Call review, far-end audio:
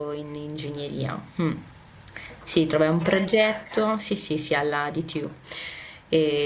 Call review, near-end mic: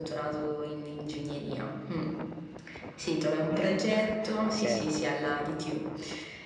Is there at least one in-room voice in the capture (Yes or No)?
Yes